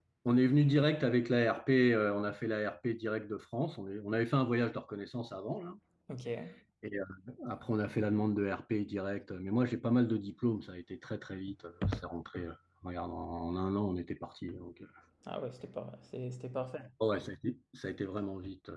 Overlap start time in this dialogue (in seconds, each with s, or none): none